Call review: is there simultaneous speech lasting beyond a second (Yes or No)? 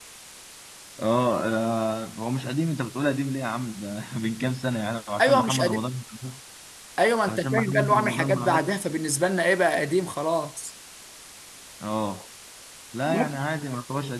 Yes